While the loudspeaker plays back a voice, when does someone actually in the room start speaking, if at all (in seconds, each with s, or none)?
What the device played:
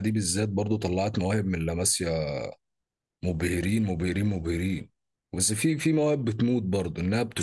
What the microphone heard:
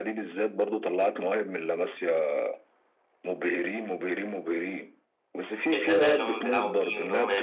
5.7 s